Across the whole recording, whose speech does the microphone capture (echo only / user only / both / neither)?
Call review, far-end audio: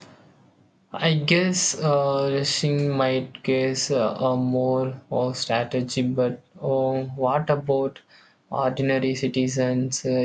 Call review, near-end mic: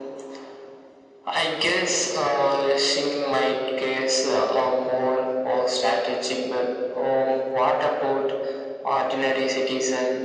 echo only